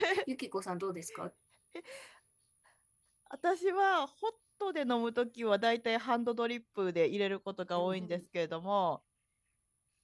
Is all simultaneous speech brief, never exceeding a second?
Yes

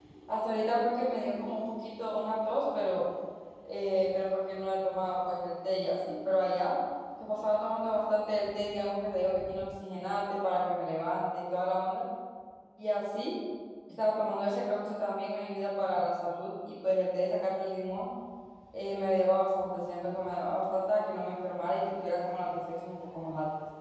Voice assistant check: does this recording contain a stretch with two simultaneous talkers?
No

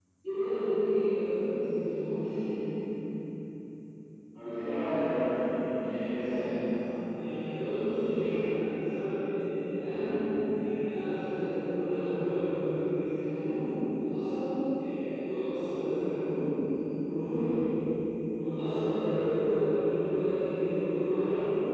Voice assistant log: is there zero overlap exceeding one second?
Yes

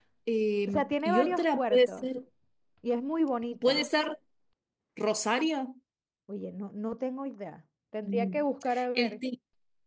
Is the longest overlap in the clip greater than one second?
Yes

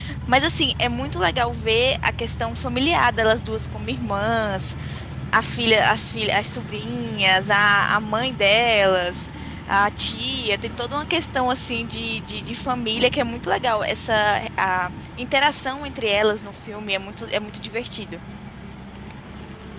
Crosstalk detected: No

